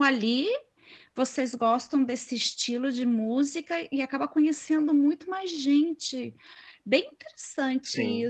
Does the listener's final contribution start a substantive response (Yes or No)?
No